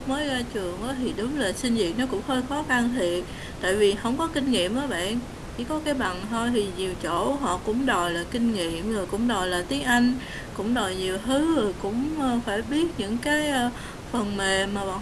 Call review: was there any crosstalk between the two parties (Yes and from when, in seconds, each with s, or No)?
No